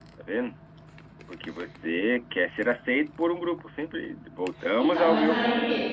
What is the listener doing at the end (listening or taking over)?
taking over